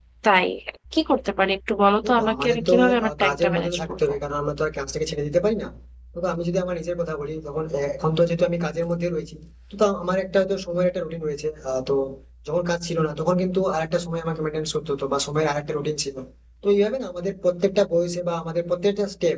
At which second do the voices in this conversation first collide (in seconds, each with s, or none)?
2.0 s